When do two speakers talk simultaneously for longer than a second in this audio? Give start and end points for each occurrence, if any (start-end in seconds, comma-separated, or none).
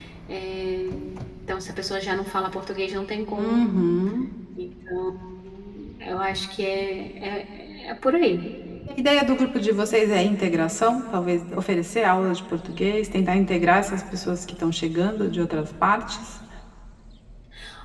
none